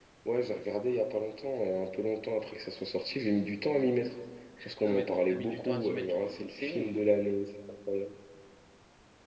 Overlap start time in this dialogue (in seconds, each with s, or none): 4.8 s